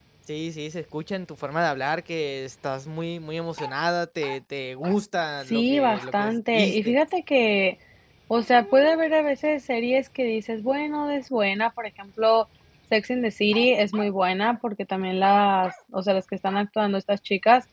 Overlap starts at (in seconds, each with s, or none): 5.5 s